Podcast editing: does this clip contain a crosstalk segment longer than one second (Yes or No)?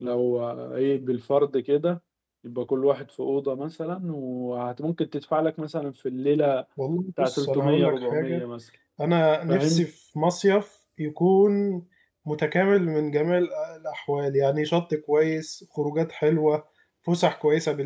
Yes